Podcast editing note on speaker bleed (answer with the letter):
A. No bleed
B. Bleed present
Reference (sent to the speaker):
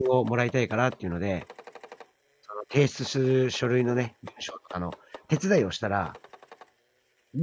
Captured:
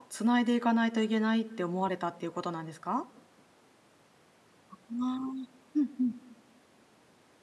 A